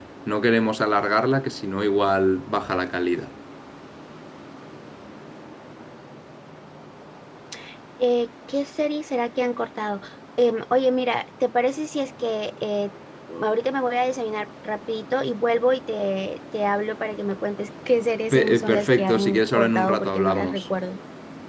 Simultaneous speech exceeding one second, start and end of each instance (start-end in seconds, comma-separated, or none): 18.3-20.6